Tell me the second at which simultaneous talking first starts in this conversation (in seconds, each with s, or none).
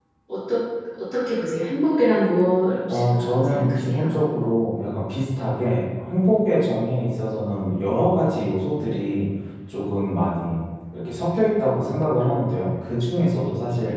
2.9 s